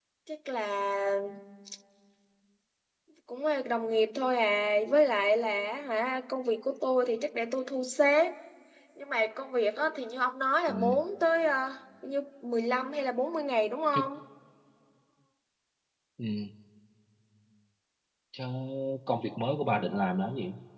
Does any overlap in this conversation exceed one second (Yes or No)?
No